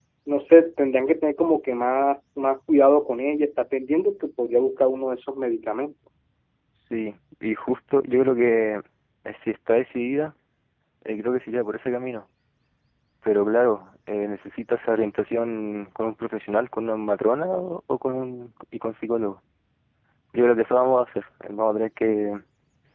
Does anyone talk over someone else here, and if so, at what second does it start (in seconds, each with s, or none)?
none